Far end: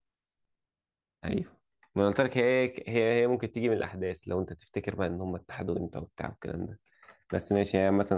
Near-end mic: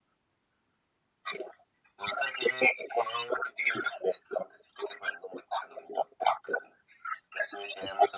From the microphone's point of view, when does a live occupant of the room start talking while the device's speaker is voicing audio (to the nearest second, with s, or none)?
none